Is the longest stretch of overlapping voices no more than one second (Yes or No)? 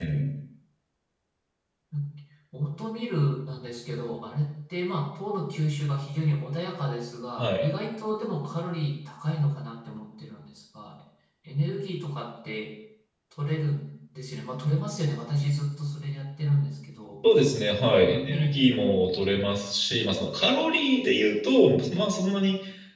Yes